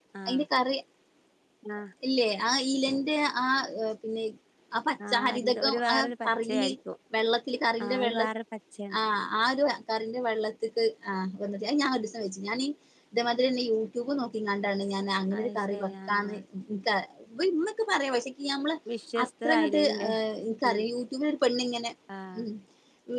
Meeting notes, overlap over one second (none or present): present